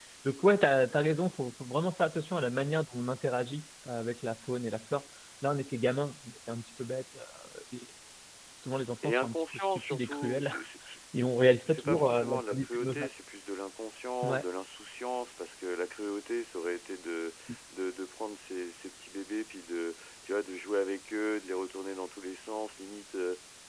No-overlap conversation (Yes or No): No